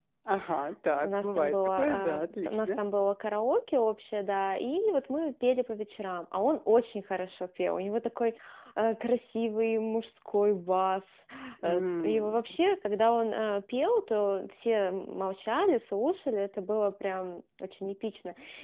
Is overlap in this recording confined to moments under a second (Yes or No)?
No